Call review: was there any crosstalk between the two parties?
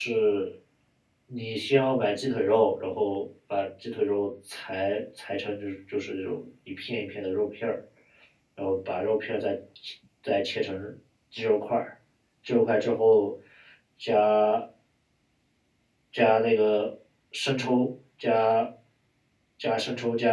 No

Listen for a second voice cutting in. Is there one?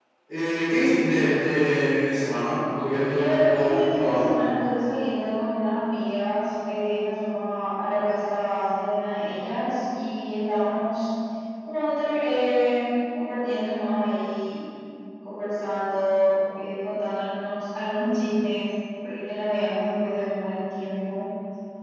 Yes, from 3.0 s

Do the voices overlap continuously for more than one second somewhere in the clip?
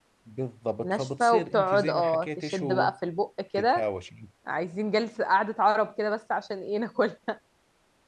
Yes, from 0.8 s

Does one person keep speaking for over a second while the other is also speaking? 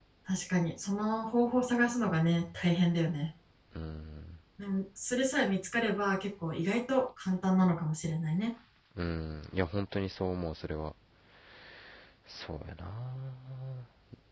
No

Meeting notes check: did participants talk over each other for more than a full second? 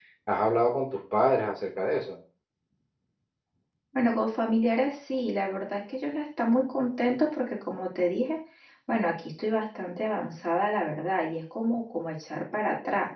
No

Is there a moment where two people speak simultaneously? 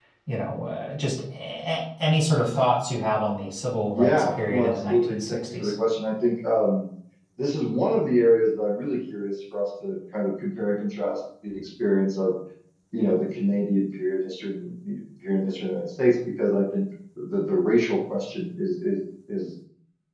Yes, from 3.9 s

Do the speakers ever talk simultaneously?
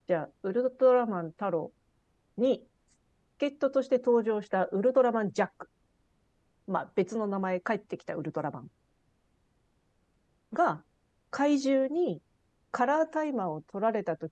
No

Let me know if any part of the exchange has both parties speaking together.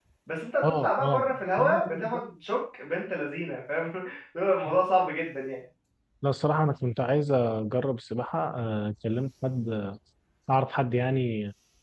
Yes, from 0.6 s

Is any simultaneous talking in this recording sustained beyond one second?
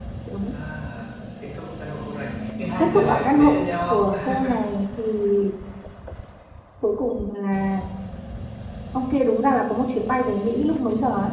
Yes, from 2.8 s

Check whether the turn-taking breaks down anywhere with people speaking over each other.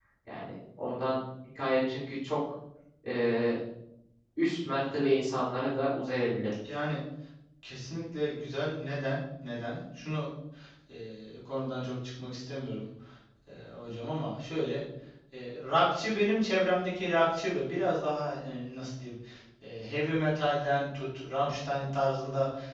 No

